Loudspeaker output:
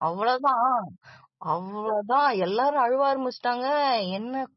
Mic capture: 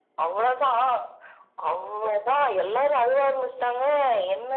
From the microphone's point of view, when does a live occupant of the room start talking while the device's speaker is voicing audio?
none

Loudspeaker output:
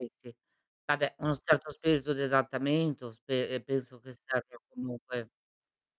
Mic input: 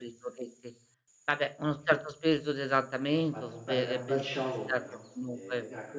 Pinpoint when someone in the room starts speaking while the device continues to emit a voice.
3.1 s

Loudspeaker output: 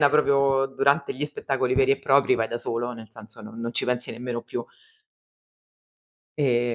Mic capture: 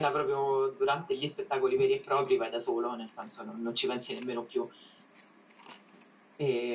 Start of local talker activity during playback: none

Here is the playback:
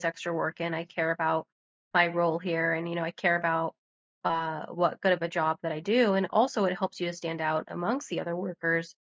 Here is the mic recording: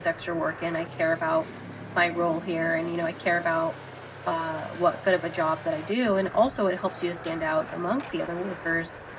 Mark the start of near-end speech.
none

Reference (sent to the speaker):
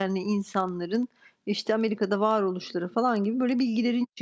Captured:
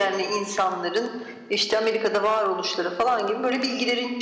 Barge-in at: none

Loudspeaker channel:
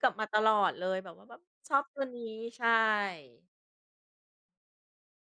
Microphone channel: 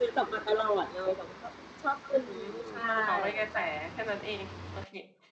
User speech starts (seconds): 2.1 s

